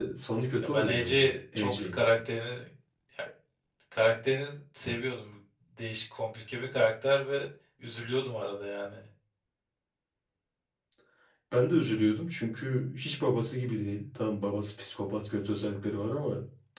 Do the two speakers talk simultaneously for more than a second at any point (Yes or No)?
Yes